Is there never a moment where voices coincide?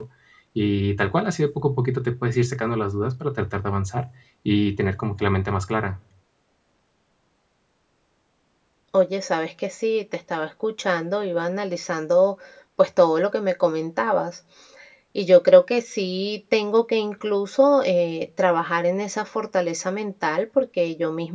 Yes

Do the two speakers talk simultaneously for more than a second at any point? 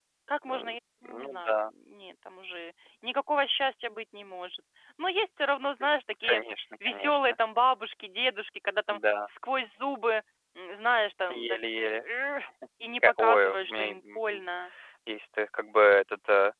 Yes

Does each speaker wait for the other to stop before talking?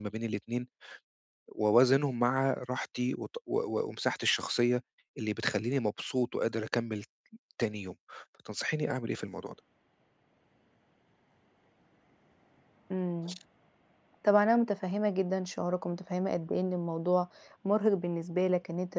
Yes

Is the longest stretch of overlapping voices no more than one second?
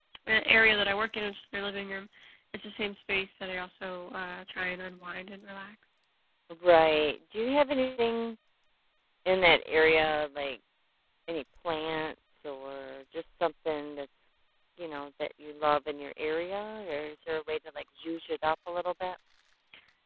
Yes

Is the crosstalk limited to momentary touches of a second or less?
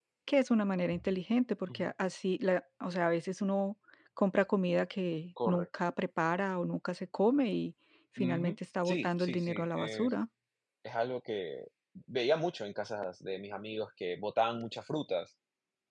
No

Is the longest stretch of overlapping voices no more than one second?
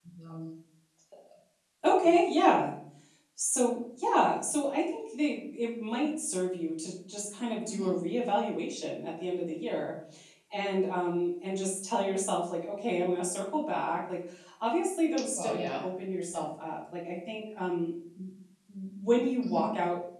Yes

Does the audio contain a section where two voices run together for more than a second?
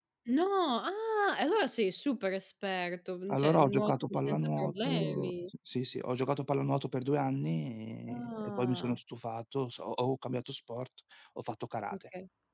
Yes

